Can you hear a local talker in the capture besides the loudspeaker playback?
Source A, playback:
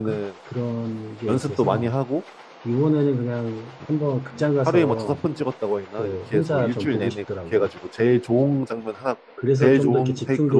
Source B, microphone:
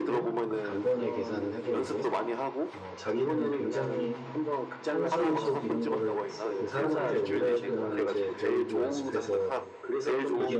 Yes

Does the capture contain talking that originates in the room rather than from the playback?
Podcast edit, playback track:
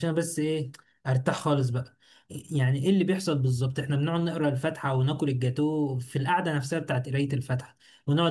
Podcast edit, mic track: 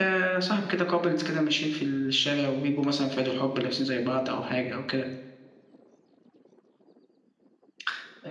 Yes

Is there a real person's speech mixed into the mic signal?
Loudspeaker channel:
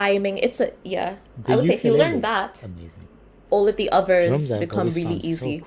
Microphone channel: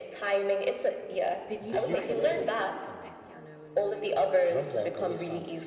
Yes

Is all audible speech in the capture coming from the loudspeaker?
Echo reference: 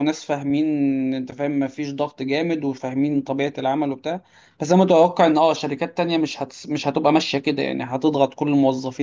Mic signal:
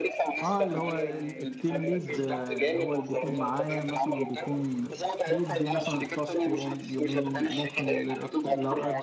No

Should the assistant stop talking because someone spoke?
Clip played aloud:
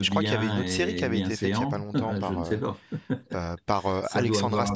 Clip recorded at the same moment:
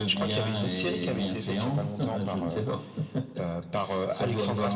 No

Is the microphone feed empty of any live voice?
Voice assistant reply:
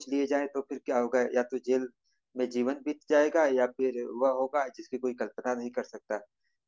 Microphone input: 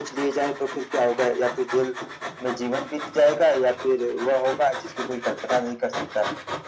Yes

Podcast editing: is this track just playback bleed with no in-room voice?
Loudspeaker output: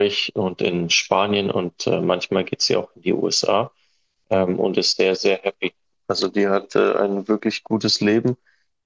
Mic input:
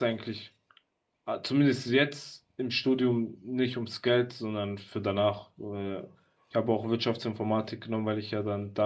No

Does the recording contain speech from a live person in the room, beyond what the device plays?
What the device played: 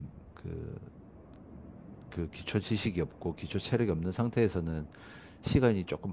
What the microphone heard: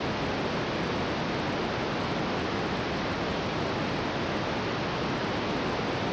No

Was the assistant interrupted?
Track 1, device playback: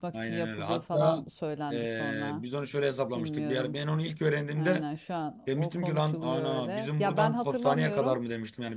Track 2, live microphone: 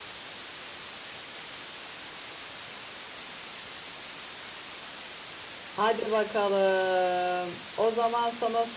Yes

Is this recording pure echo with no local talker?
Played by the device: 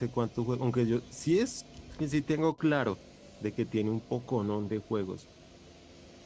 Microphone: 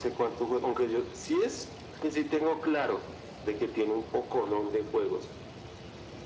Yes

